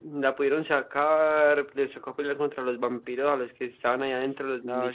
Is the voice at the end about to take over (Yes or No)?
Yes